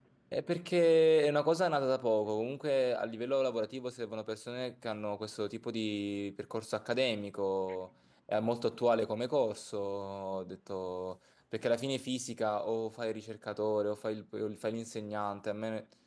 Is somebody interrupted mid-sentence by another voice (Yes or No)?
No